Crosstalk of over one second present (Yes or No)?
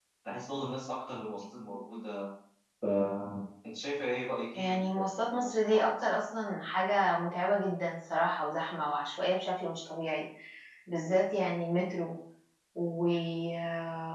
Yes